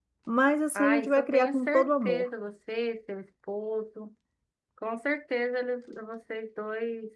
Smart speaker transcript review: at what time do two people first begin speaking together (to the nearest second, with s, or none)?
1 s